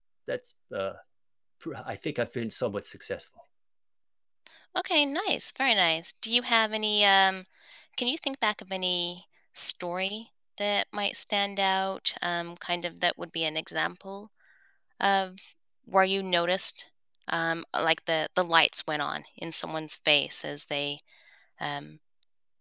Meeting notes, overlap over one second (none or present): none